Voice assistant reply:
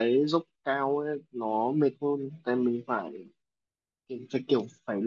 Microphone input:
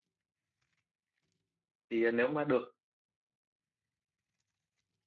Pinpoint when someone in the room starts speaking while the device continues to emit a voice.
1.9 s

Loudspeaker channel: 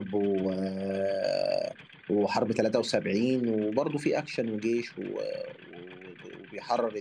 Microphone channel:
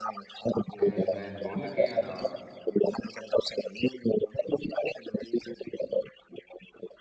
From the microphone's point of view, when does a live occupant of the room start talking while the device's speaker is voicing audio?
0.8 s

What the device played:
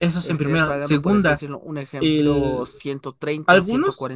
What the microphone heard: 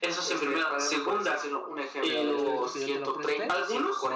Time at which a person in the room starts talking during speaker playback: 2.0 s

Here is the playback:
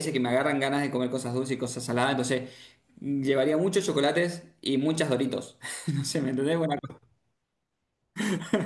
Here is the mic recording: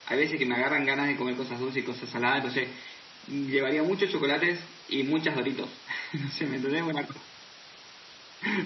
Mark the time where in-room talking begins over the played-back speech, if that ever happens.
none

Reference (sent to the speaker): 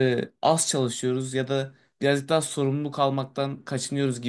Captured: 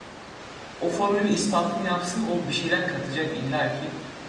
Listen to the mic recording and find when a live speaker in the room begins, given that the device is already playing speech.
0.8 s

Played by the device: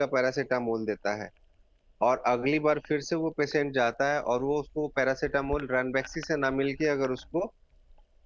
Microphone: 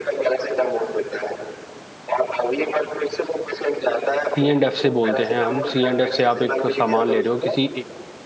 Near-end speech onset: 4.4 s

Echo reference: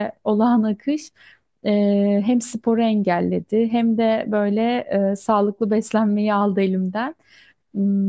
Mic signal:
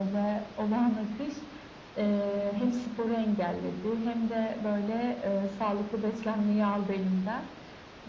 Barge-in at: none

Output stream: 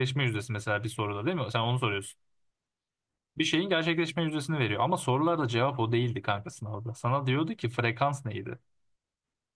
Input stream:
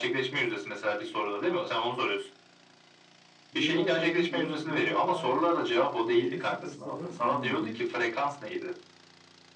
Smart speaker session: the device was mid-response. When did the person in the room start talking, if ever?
3.5 s

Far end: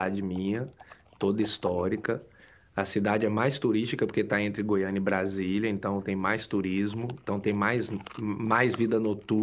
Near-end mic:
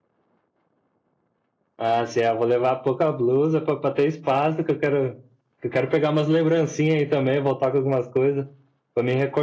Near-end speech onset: 1.8 s

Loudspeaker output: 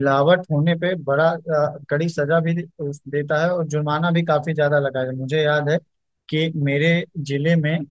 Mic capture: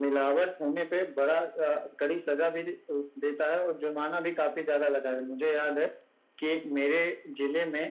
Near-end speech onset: none

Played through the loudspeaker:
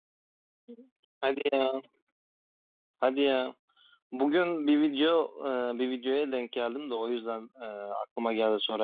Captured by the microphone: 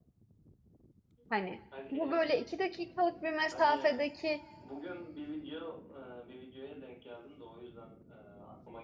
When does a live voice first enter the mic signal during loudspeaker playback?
1.3 s

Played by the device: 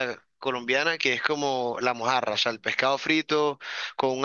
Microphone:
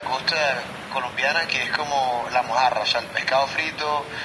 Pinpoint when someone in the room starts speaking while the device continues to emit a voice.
none

